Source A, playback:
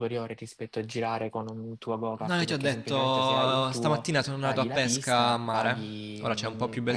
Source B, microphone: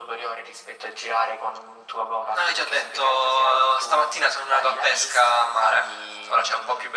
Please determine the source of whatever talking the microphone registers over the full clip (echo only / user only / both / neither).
echo only